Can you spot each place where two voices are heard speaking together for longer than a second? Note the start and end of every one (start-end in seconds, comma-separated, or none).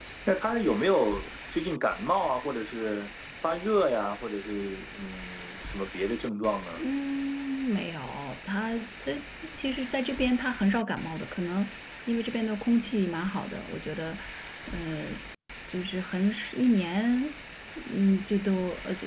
none